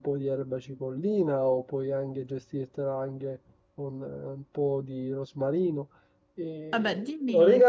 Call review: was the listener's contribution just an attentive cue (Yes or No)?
Yes